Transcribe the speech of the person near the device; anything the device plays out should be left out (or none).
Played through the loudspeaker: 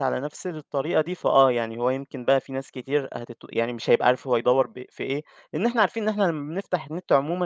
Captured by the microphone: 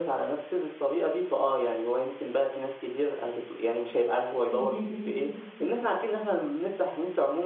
اهم،